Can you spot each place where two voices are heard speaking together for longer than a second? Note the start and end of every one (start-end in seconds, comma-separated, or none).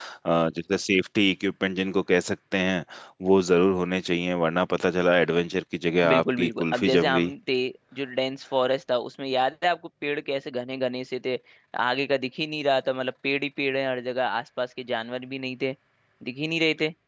6.1-7.3